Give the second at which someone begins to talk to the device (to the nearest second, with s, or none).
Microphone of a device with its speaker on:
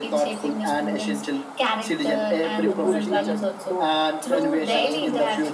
3 s